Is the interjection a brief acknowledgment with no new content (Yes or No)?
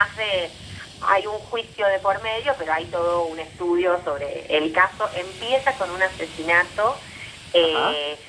Yes